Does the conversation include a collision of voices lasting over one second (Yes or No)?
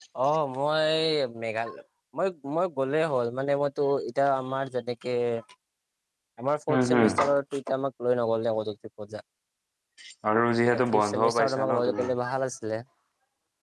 Yes